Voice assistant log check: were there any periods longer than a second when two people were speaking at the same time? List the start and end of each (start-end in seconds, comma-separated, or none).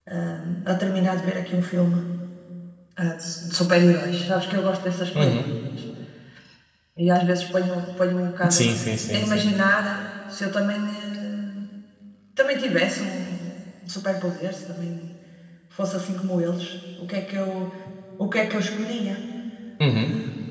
none